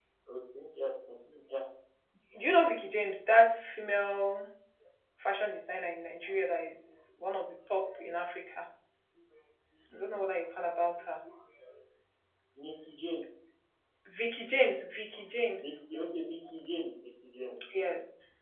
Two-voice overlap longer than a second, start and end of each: none

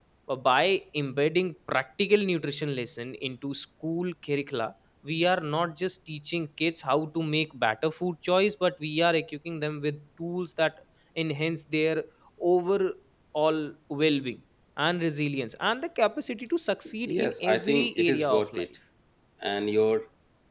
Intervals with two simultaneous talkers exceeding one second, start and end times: 17.1-18.7

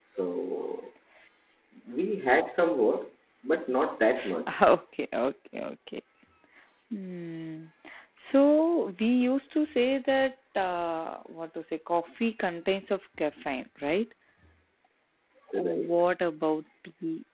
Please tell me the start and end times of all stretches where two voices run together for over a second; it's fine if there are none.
none

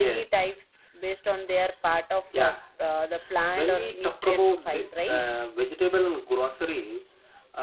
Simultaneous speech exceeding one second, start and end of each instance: 3.5-5.2

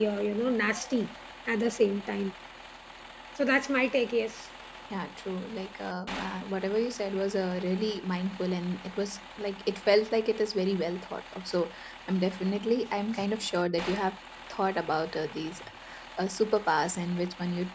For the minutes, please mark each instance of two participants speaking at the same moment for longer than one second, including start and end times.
none

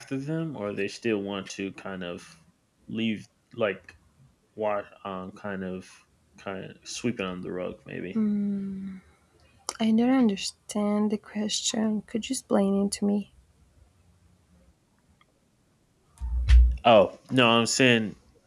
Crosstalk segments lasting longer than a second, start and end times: none

